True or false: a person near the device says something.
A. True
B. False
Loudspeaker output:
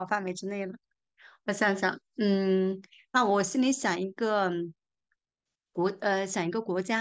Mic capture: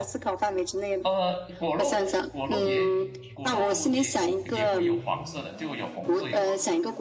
A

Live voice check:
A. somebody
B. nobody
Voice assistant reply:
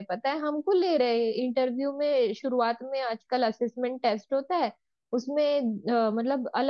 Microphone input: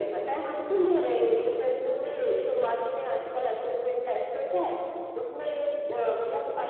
B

